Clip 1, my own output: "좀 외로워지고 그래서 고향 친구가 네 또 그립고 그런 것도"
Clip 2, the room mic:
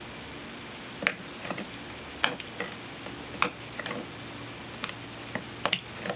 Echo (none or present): none